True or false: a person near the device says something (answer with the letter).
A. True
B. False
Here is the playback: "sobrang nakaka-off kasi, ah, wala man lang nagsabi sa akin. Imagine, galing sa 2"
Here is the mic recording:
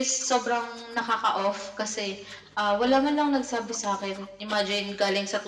B